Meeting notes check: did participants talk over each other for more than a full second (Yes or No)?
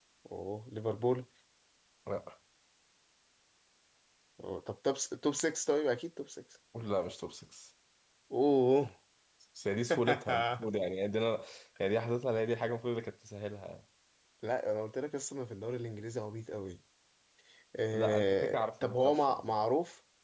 Yes